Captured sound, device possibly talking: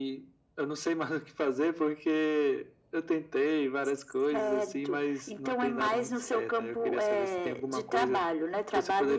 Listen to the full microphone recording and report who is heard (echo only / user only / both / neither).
echo only